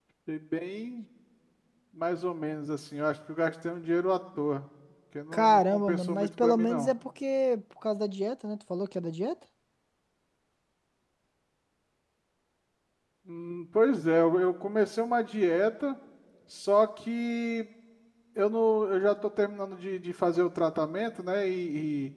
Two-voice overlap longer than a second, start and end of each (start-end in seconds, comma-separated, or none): 5.3-6.9